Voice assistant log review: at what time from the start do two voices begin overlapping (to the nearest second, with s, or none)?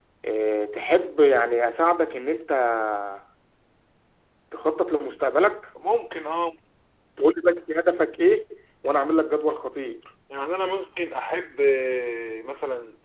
none